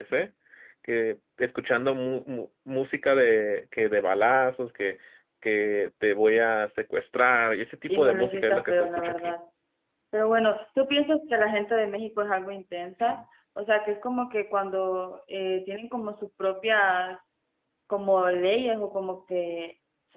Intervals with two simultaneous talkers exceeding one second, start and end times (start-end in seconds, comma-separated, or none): 7.9-9.3